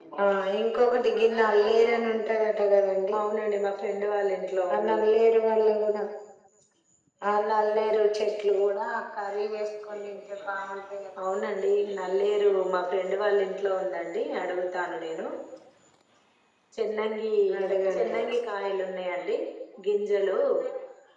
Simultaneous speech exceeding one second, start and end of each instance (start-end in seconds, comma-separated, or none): none